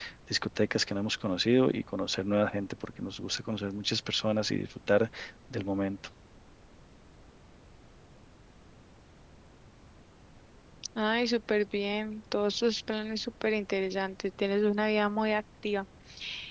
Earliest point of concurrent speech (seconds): none

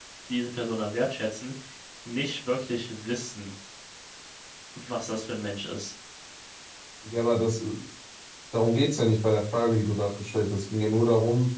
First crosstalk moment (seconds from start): none

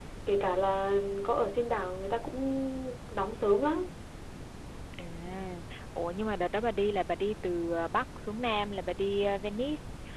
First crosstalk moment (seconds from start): none

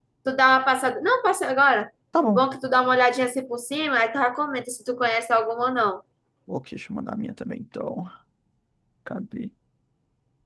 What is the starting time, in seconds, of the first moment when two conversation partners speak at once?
none

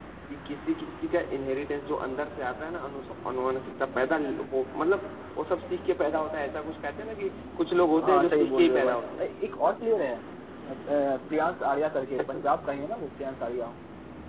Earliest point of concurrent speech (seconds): 8 s

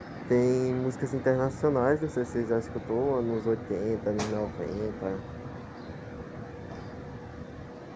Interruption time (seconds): none

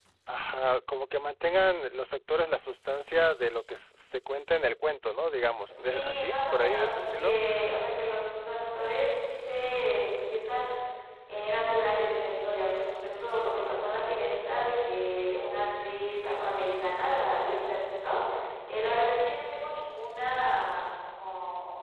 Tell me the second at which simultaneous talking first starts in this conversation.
6 s

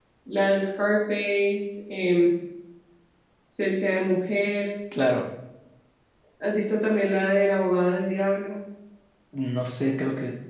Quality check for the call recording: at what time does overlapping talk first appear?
none

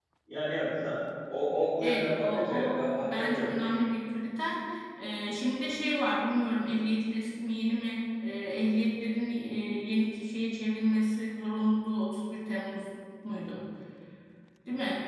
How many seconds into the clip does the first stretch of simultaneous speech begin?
2 s

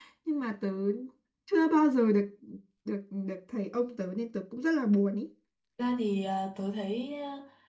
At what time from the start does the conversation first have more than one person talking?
none

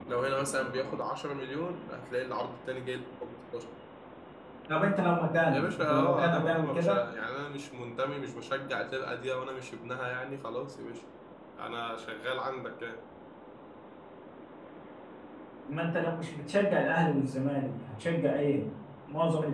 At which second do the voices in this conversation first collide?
6 s

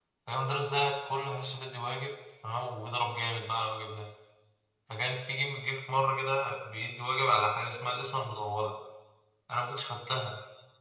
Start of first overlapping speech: none

